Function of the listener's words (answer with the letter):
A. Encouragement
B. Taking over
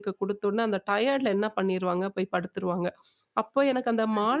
A